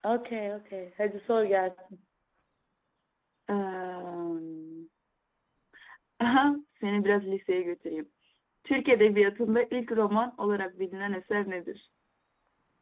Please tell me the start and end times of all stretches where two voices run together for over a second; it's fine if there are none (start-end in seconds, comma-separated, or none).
none